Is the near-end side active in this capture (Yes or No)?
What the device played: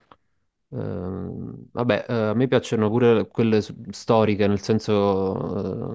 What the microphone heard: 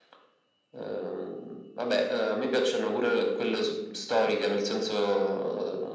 No